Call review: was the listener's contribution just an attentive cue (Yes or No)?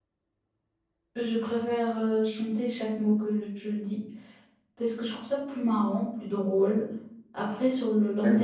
No